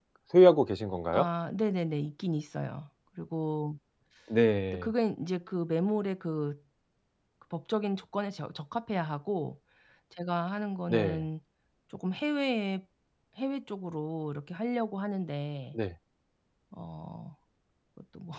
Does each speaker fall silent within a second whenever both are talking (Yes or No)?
Yes